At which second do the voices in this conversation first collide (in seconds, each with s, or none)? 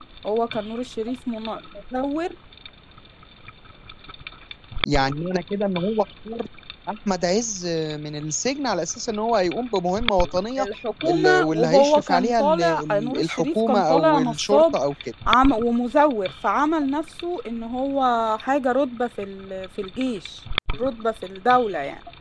11.1 s